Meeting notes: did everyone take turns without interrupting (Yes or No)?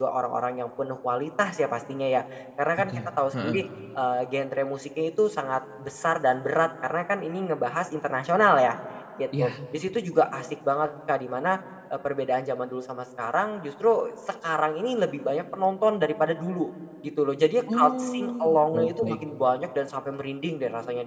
No